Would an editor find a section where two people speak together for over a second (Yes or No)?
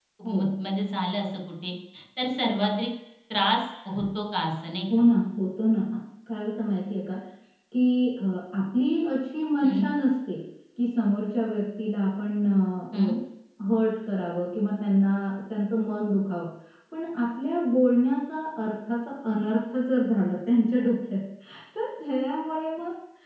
No